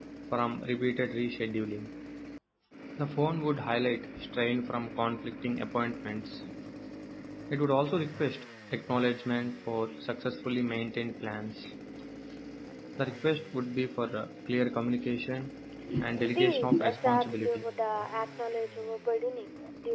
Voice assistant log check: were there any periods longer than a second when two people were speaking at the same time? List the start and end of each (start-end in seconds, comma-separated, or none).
16.2-17.6